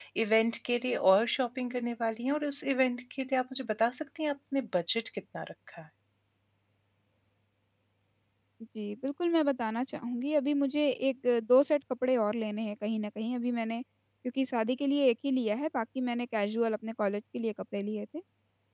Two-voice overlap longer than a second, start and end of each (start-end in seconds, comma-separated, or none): none